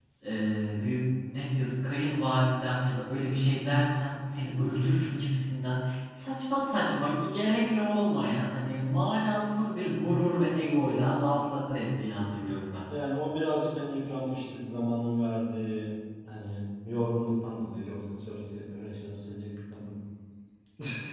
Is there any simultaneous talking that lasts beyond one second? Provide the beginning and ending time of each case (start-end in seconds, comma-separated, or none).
none